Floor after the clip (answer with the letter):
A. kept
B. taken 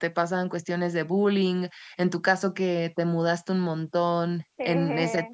A